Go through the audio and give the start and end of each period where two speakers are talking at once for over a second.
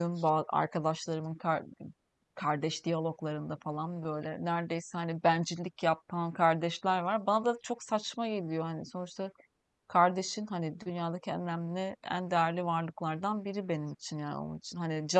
none

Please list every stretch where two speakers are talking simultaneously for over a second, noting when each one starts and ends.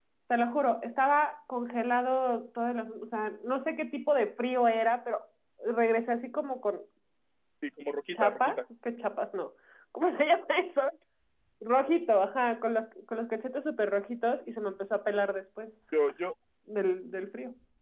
none

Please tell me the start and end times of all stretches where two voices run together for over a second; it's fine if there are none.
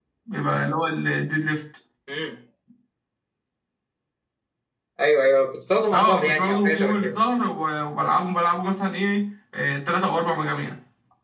5.9-7.1

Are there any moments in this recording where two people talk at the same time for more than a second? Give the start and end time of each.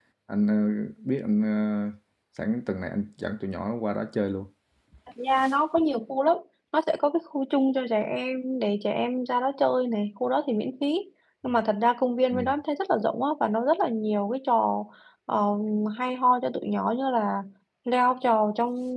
none

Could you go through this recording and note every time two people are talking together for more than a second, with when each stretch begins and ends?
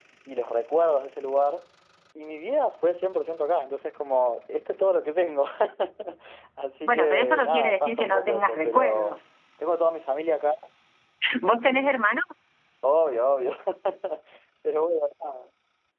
6.8-9.2

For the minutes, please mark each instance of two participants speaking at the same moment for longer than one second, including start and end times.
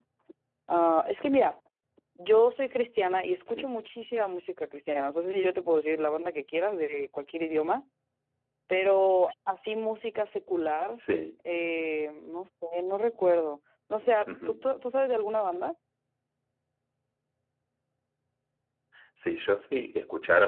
none

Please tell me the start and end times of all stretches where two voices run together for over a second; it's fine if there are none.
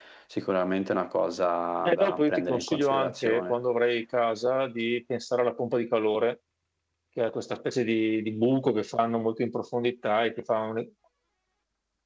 1.8-3.6

